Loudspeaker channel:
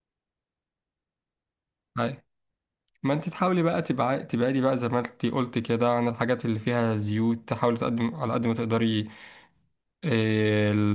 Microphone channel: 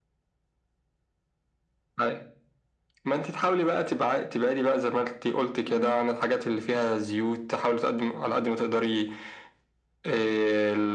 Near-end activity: present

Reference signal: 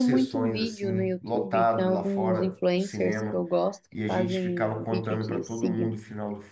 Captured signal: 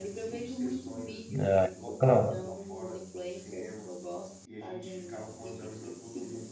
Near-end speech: present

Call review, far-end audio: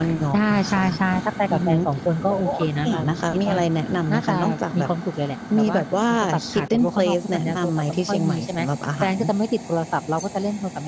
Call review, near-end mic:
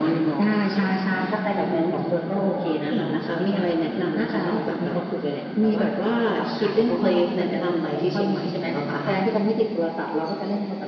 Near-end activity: none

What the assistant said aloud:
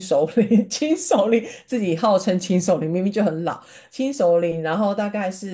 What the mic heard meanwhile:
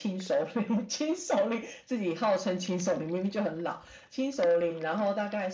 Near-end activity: none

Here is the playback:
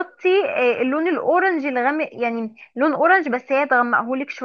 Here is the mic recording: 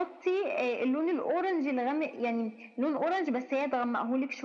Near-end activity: none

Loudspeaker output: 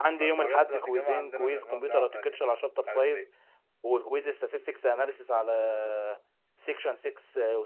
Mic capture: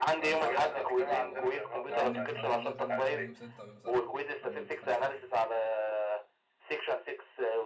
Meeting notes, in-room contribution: present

